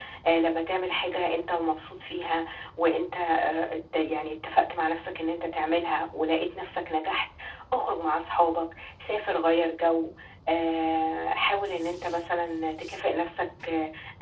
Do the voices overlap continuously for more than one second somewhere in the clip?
No

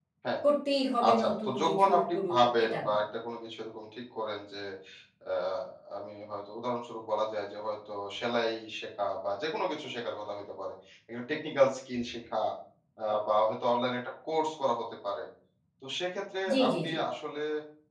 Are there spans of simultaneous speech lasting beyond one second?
Yes, from 1.1 s

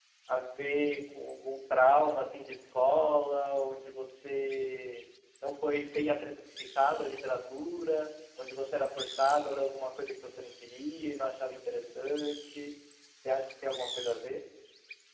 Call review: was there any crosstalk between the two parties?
No

